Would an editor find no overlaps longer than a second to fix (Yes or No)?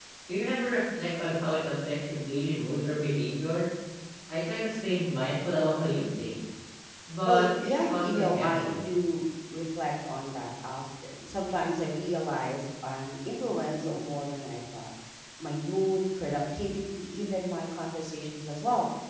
No